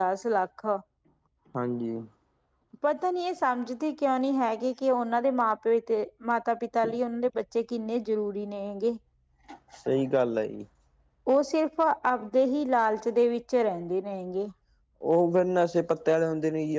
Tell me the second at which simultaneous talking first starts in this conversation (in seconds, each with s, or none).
none